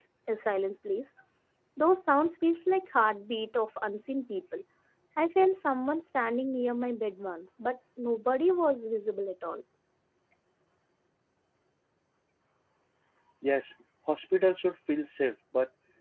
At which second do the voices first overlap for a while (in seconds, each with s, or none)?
none